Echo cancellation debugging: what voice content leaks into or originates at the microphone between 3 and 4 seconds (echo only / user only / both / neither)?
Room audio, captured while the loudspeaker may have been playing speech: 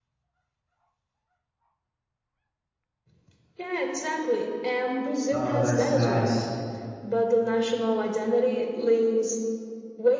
echo only